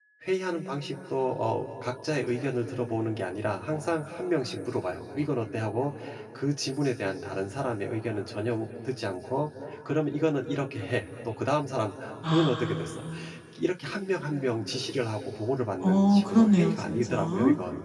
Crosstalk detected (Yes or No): Yes